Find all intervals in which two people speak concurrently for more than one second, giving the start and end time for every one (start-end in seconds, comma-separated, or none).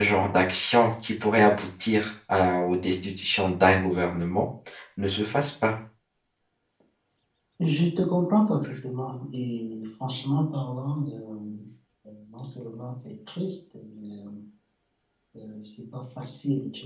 none